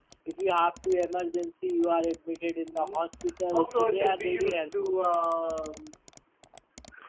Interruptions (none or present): present